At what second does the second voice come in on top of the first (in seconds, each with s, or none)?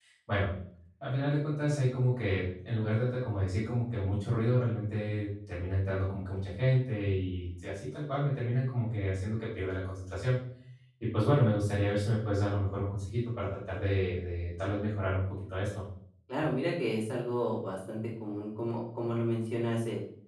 none